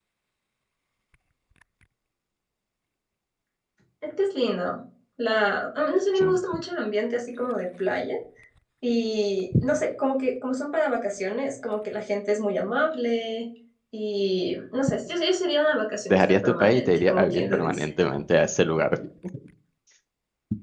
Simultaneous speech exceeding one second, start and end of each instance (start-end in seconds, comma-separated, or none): 16.1-17.8